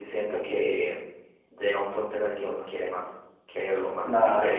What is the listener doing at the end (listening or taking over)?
taking over